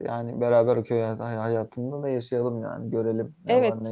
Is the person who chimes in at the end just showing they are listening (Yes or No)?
No